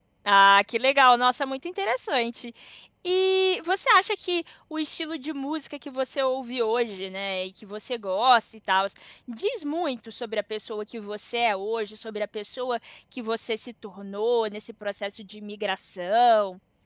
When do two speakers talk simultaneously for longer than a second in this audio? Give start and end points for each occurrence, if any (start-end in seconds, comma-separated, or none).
none